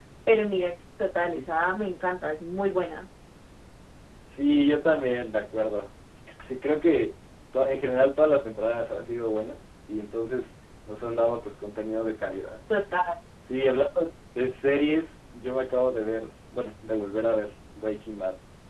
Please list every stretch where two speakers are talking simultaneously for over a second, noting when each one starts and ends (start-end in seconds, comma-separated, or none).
none